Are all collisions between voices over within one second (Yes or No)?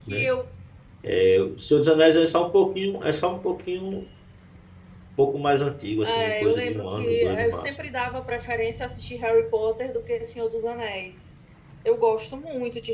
No